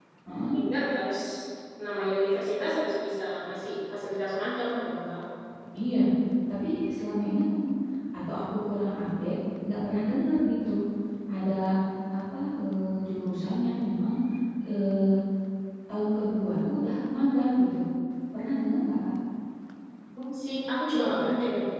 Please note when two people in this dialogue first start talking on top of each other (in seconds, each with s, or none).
none